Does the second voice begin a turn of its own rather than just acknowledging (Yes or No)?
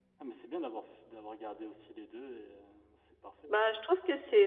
Yes